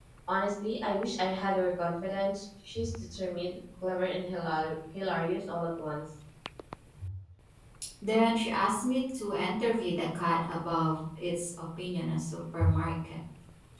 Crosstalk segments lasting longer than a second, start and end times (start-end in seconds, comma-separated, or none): none